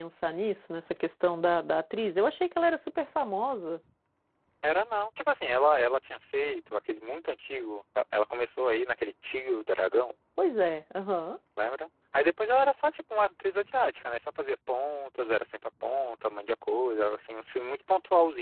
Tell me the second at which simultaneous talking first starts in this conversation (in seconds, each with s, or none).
none